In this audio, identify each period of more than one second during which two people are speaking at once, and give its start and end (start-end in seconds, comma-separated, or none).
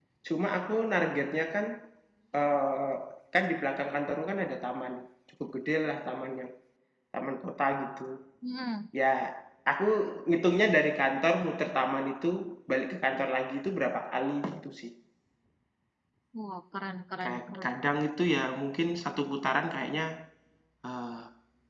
none